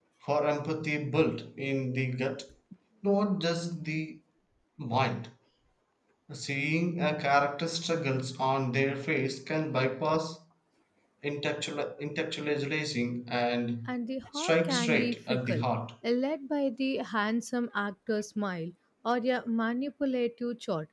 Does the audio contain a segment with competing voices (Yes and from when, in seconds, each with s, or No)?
Yes, from 14.3 s